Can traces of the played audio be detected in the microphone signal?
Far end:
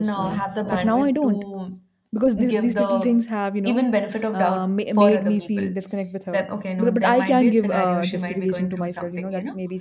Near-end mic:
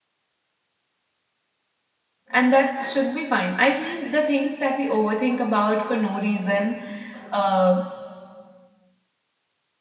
No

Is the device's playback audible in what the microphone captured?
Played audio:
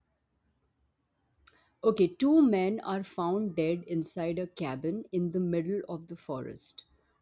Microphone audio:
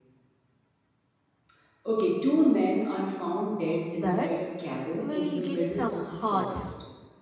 Yes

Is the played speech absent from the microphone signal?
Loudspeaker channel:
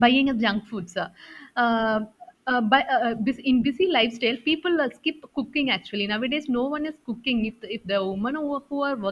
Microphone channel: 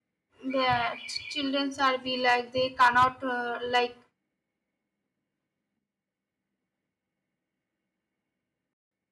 Yes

